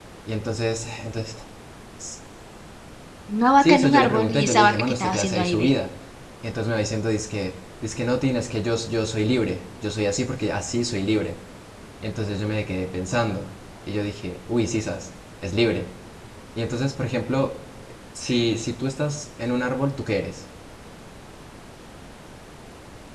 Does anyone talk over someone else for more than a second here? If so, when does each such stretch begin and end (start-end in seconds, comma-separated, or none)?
3.6-5.7